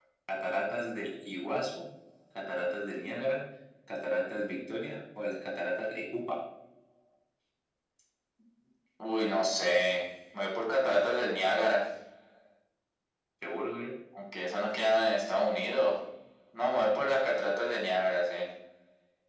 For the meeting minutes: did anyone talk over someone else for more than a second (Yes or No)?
No